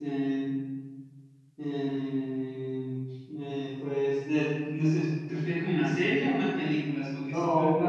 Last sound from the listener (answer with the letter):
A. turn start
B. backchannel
A